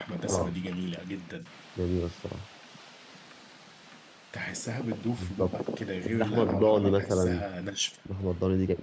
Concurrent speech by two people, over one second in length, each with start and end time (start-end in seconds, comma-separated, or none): 6.1-7.4